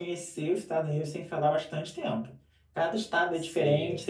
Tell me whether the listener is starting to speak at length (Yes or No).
No